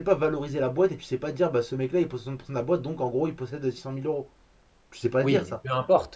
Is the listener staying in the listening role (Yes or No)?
No